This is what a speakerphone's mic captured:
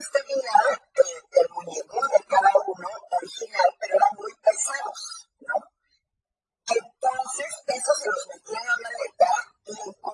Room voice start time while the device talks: none

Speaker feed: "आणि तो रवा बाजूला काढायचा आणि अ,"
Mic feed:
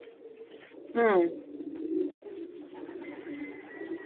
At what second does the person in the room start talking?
0.9 s

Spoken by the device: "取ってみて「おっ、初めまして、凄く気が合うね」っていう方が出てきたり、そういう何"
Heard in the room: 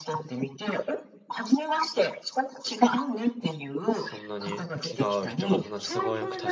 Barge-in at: 3.9 s

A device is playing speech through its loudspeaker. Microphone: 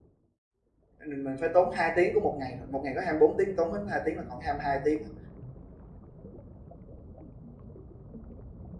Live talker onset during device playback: 1.1 s

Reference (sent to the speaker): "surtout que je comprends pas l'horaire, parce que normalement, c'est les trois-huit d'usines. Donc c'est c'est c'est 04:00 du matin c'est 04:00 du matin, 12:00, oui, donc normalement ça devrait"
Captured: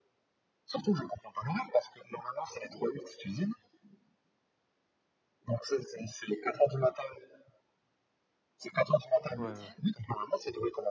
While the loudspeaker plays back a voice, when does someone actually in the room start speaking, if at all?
9.4 s

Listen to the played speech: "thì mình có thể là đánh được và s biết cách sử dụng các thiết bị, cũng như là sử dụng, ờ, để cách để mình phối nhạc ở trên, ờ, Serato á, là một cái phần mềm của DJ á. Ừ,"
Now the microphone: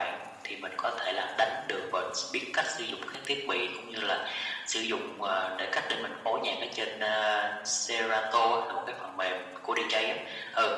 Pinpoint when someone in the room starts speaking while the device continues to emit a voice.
none

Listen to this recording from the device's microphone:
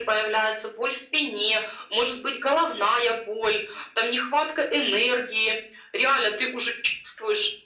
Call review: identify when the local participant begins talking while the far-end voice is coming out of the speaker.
none

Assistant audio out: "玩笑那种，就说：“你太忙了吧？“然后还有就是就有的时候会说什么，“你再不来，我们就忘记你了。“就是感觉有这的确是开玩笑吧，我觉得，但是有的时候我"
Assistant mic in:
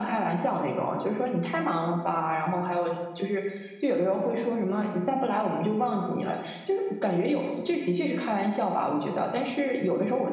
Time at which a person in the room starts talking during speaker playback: none

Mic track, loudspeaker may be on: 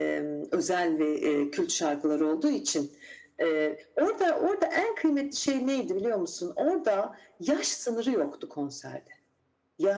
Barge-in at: none

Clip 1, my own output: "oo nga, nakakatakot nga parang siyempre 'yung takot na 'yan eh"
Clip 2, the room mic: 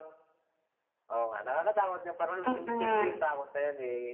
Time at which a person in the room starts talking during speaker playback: 2.4 s

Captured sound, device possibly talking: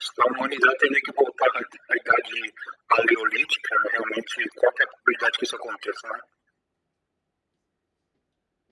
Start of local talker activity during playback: none

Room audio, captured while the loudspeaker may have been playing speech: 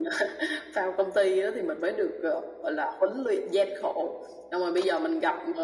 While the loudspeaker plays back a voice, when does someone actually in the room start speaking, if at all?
none

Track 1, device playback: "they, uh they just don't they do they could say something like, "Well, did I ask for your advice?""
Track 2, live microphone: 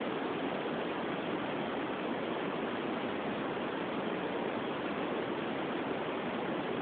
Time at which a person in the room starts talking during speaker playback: none

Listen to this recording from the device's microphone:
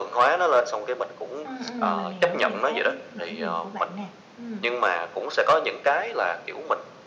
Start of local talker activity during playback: 1.4 s

